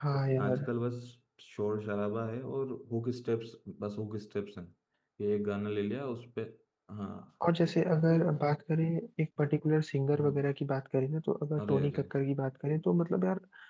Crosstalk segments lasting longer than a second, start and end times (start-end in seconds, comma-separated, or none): none